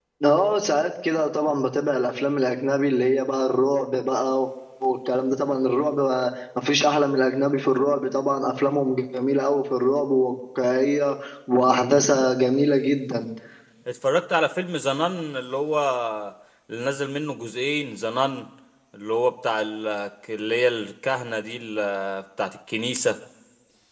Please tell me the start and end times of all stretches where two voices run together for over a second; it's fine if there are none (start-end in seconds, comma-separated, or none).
none